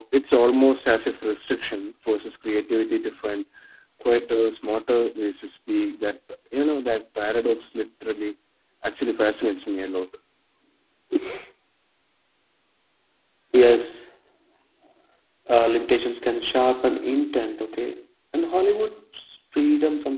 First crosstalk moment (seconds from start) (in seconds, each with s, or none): none